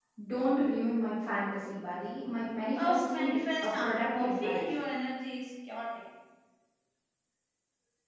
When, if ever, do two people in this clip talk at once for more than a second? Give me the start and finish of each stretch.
2.8-4.6

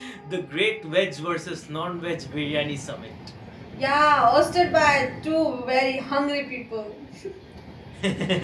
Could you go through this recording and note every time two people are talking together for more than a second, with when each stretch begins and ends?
none

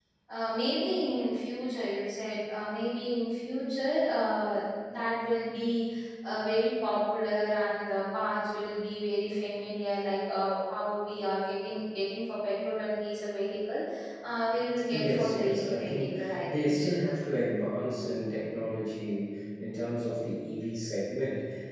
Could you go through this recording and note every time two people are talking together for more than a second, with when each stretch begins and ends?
14.9-16.9

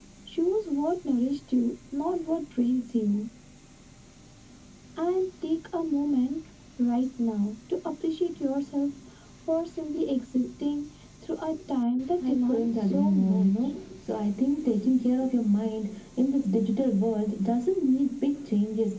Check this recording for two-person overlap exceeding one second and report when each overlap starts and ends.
12.3-13.7

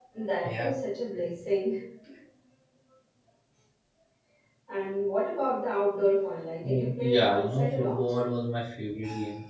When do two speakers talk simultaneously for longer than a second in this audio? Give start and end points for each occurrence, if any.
6.7-8.2

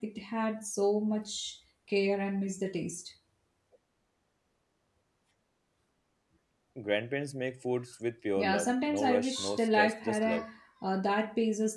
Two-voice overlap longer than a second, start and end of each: 8.4-10.4

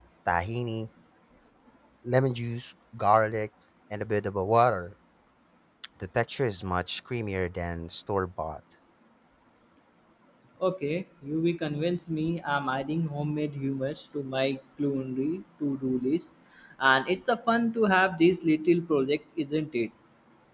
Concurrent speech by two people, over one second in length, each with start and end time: none

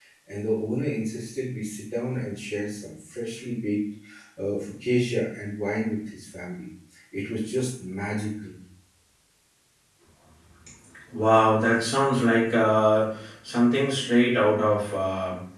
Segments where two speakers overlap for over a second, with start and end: none

